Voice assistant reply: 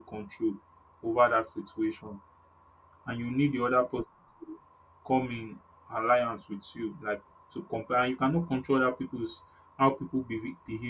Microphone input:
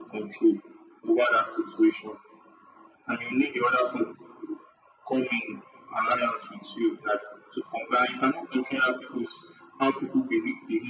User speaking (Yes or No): No